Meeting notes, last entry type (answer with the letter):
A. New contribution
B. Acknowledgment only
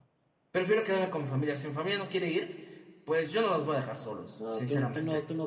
A